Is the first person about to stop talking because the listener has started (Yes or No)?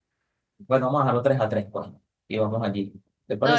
Yes